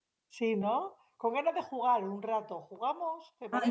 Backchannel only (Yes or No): No